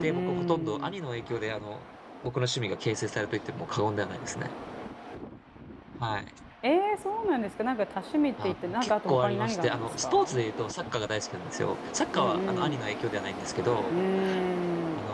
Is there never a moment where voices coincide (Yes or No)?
No